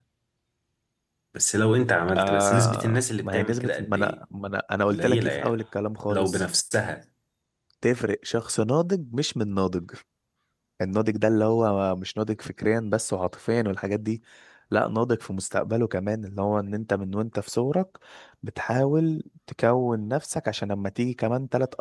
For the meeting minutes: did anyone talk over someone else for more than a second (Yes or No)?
Yes